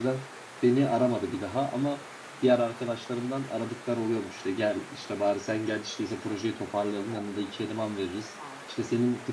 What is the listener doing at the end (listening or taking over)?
listening